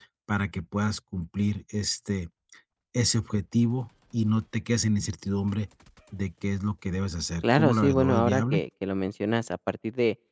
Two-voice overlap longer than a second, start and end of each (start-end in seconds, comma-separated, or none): 7.4-8.6